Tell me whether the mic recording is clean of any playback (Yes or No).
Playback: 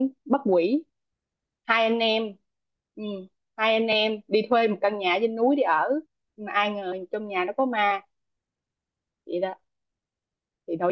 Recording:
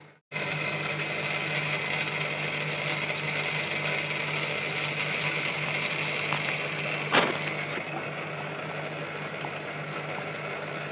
Yes